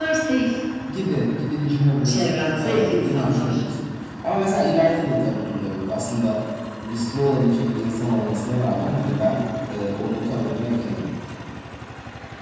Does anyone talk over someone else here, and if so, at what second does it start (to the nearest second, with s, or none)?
2 s